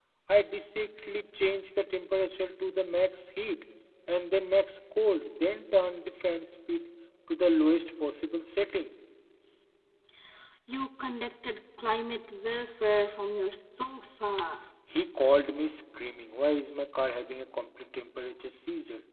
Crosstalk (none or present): none